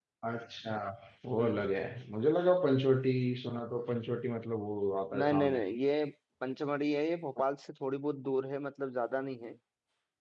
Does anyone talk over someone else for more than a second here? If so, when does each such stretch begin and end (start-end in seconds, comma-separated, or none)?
none